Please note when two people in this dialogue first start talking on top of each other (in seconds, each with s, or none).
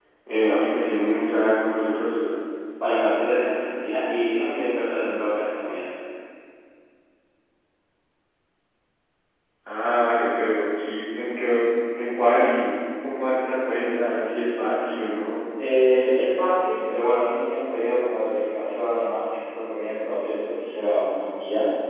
none